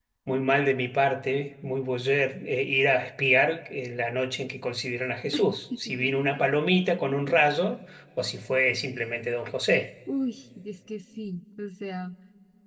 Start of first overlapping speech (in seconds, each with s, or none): none